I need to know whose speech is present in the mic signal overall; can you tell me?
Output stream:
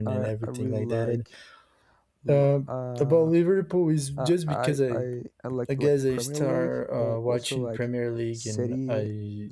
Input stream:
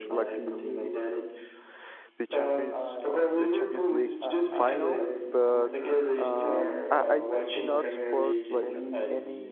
both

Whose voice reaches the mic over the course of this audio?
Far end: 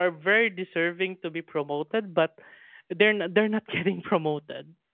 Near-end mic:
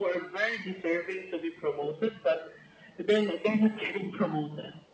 echo only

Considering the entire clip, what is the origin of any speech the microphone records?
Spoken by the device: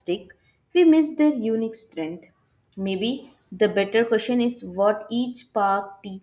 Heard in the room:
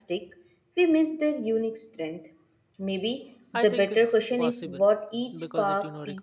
both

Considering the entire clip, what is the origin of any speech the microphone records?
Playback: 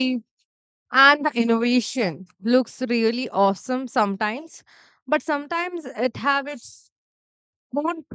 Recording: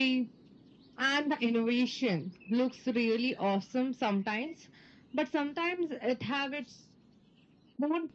echo only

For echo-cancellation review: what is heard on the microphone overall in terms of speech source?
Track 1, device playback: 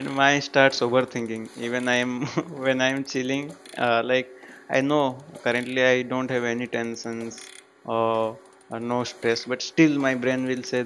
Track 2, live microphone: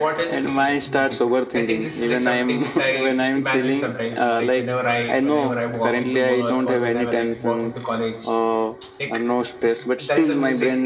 both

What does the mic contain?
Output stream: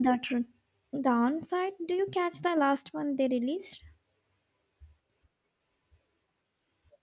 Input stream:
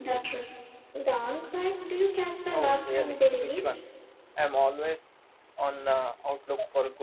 both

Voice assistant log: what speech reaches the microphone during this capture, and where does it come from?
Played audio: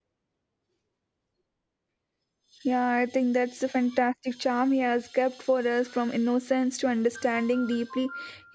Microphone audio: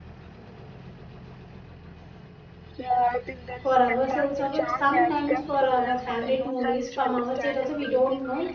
both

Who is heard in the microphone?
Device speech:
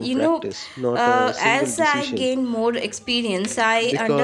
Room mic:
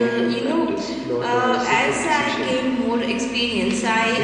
echo only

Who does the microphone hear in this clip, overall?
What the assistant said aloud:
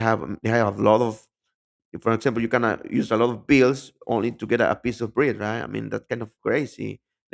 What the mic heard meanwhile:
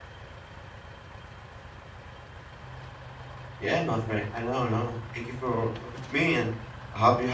user only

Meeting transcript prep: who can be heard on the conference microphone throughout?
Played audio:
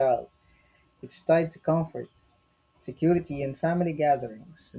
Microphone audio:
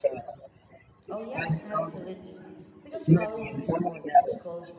both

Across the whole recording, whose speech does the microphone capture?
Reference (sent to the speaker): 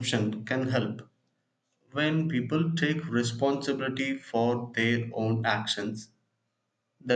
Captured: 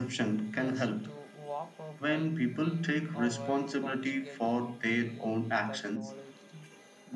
both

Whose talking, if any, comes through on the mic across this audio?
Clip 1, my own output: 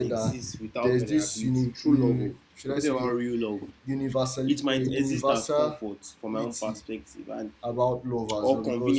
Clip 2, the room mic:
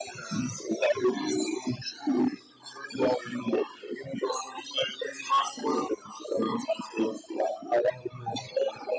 echo only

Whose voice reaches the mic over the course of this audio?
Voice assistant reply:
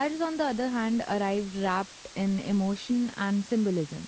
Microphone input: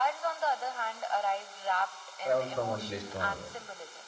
both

